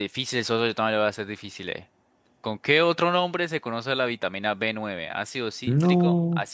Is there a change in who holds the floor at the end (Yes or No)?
No